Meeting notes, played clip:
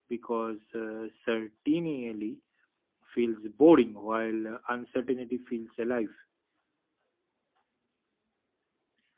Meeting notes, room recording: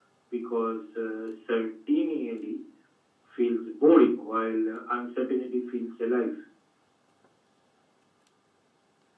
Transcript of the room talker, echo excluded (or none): none